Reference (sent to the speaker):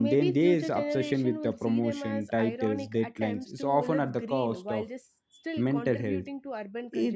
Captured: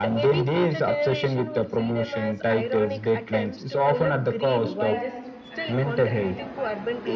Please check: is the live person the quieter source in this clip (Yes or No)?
Yes